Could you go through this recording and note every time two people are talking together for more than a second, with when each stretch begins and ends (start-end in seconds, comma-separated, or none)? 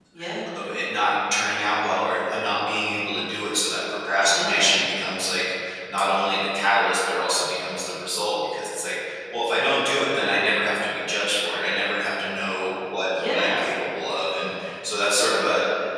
none